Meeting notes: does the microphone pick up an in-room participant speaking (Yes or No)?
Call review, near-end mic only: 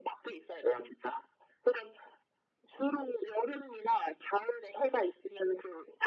No